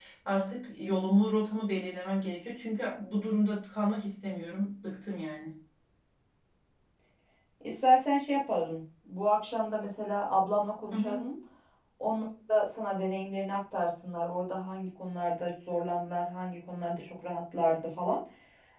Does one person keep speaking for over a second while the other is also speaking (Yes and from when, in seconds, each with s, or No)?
No